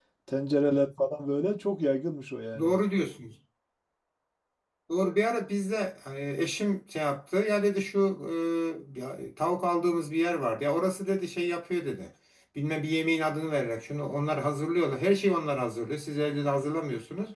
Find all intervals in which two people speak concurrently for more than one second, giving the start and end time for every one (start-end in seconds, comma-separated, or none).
none